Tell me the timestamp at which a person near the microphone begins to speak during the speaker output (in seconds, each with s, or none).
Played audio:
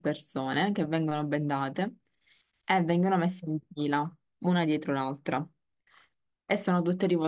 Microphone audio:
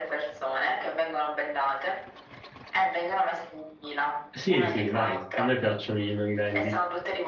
4.3 s